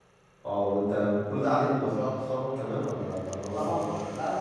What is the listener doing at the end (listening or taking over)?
taking over